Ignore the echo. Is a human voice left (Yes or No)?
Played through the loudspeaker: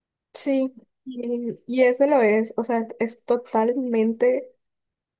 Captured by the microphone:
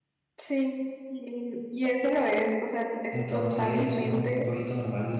Yes